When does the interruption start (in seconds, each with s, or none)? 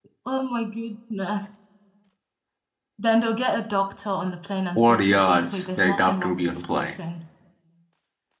4.8 s